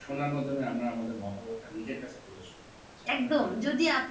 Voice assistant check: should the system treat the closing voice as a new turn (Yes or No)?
Yes